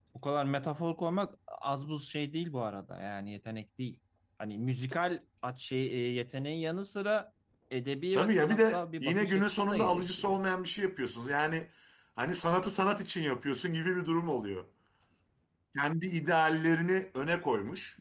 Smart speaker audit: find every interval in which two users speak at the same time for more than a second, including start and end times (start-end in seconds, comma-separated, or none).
8.2-10.4